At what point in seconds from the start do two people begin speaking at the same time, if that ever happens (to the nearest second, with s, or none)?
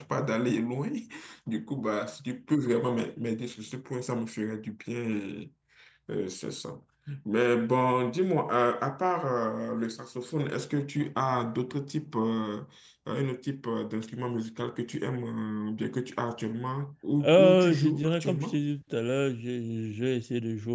17 s